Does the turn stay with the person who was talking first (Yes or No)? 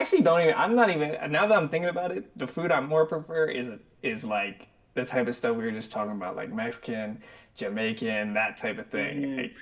No